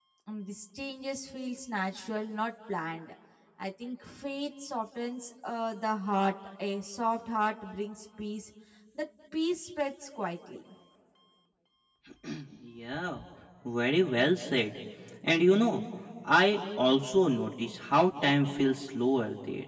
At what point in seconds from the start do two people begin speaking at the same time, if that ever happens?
none

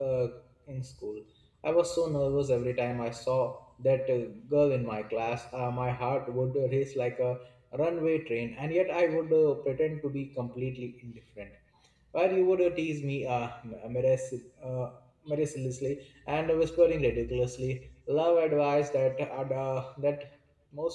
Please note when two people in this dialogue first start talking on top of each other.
none

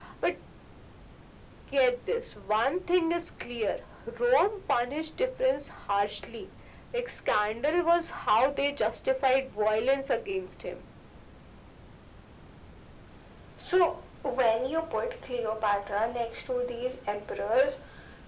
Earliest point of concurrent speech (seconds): none

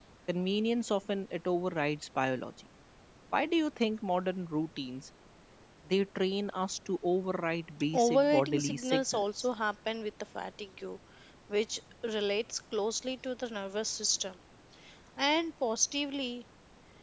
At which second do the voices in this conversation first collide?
7.9 s

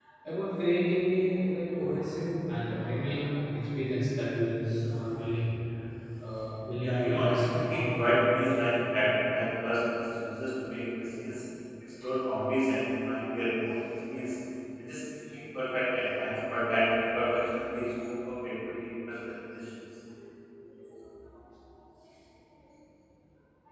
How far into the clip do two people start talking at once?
6.8 s

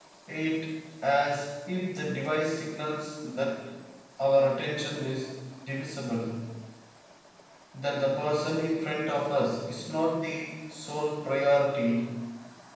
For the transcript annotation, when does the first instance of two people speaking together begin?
none

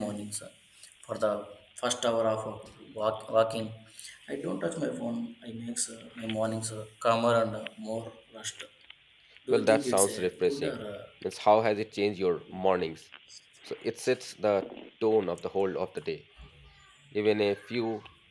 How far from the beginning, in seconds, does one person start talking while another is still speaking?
9.5 s

